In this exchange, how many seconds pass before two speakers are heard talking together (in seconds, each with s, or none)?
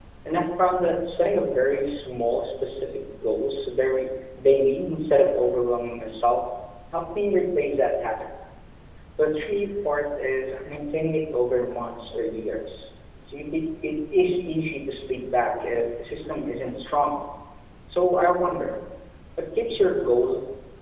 none